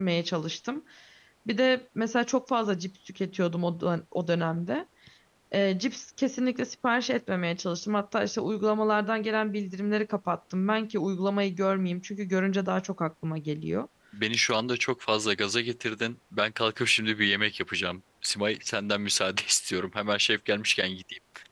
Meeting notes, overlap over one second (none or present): none